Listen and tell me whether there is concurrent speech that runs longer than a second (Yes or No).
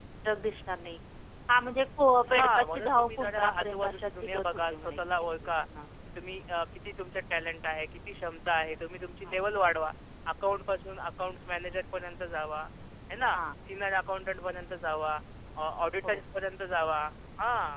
Yes